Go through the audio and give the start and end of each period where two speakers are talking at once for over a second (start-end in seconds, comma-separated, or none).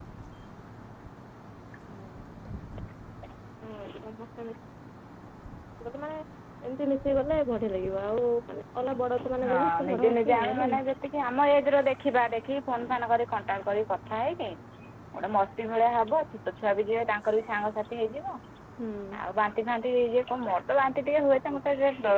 9.5-10.8